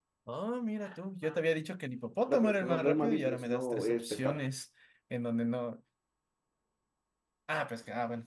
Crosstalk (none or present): present